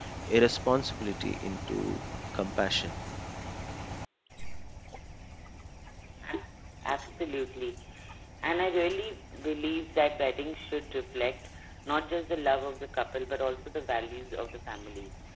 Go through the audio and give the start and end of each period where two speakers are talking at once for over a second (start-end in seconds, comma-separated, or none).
none